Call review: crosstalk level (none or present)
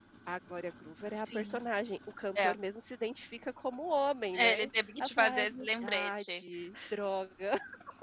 present